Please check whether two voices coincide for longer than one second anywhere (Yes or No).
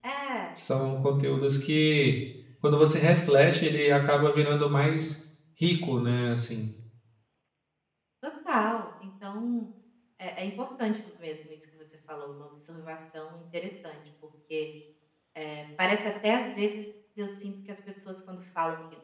No